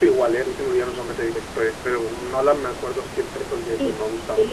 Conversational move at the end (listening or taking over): taking over